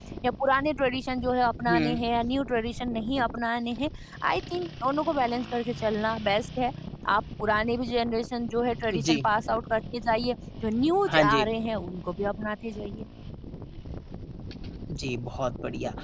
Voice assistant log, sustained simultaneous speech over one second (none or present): none